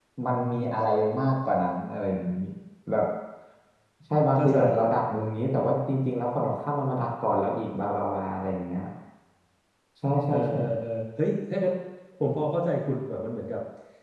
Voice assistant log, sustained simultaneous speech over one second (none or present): none